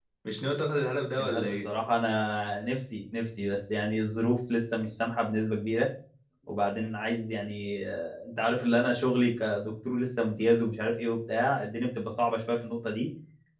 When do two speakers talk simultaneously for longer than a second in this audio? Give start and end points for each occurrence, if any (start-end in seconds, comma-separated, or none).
none